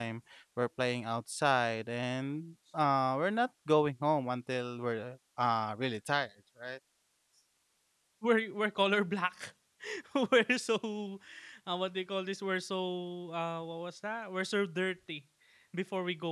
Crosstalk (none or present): none